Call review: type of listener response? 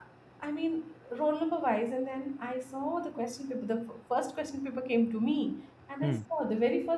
listening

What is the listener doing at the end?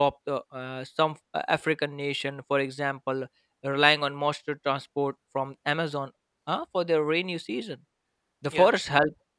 listening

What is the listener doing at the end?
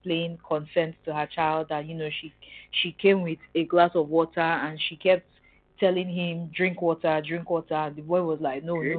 listening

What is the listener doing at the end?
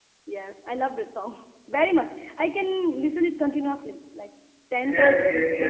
taking over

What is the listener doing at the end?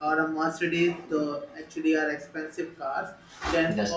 listening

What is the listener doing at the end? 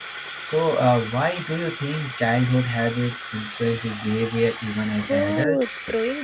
taking over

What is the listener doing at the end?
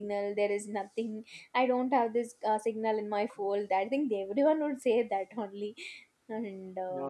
taking over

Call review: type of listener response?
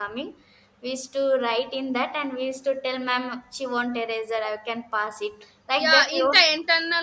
taking over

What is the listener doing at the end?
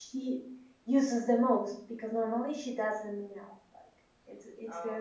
listening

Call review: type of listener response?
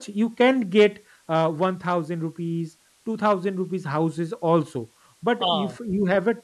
listening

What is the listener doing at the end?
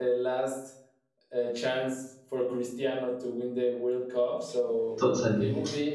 listening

